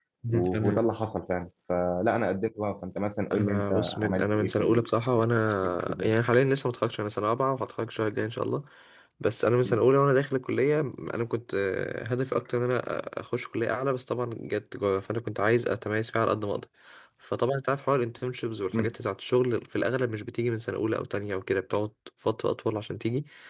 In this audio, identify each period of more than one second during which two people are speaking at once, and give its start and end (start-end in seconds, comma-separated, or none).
3.3-4.9